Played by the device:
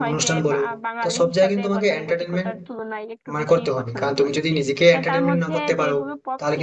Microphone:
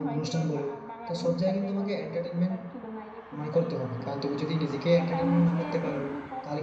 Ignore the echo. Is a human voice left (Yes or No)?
No